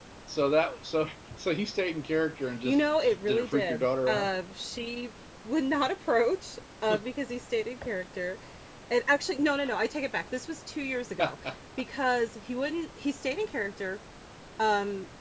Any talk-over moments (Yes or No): Yes